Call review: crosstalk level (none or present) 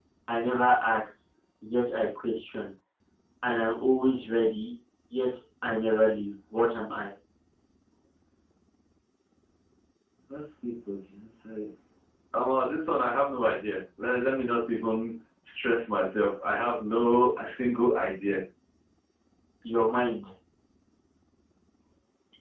none